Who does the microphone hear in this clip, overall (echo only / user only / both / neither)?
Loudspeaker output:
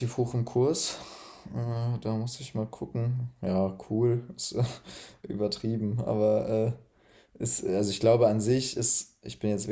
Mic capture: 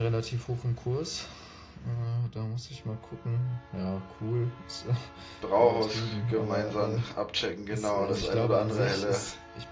both